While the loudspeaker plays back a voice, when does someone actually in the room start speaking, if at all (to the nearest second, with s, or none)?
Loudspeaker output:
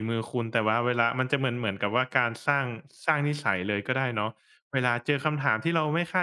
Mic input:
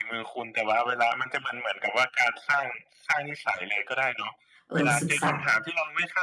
5 s